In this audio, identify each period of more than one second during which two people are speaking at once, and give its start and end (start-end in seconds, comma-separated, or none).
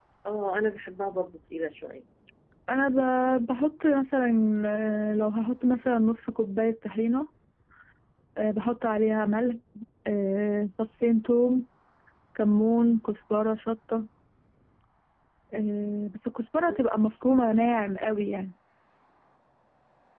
none